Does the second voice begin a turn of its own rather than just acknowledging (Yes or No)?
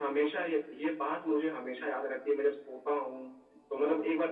No